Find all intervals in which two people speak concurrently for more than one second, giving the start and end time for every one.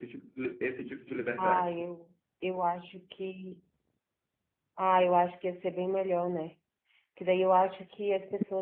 none

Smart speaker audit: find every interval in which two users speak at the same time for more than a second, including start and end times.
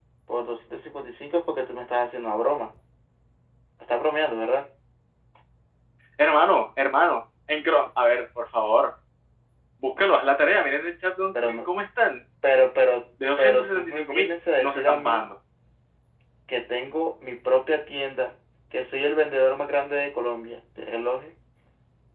13.4-15.2

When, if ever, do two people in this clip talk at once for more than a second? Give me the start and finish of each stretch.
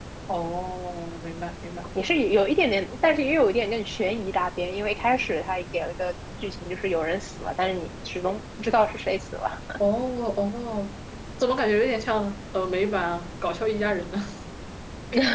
none

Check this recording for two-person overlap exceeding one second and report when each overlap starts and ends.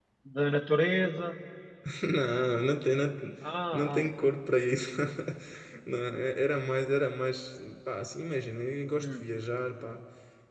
none

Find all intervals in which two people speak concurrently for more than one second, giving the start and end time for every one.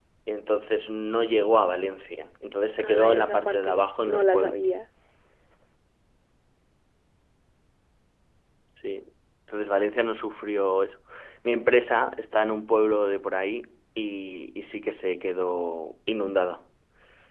2.8-4.6

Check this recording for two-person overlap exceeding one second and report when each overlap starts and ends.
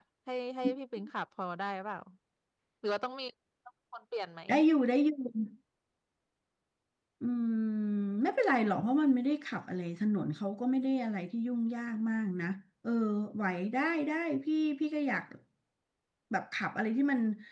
none

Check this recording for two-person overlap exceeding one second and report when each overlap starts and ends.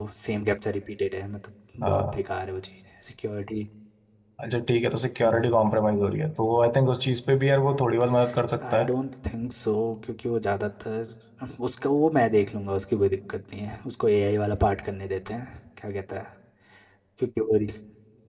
none

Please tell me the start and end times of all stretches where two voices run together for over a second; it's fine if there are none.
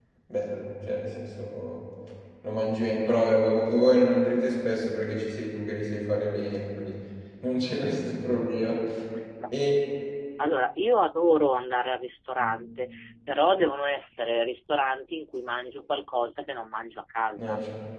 none

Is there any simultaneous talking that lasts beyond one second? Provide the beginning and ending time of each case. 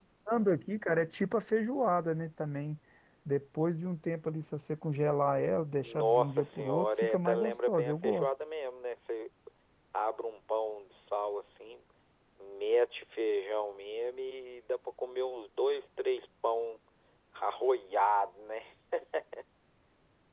5.8-8.3

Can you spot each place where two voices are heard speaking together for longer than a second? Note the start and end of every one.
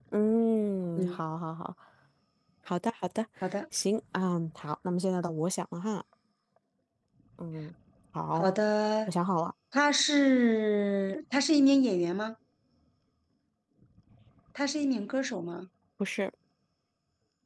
none

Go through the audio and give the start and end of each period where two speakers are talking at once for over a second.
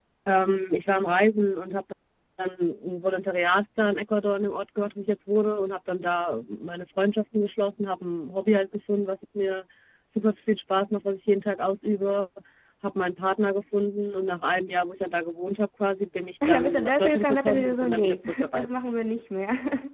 16.5-18.7

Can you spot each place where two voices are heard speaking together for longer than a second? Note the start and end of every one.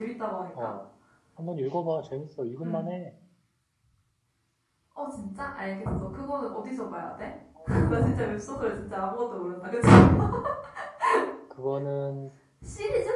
none

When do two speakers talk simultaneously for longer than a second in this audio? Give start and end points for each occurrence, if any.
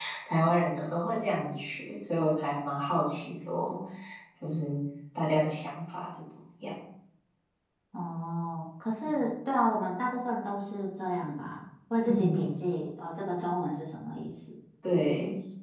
none

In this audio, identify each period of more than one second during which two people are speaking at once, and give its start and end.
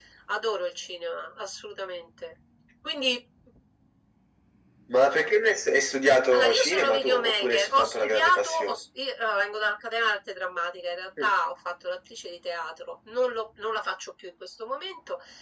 6.3-8.8

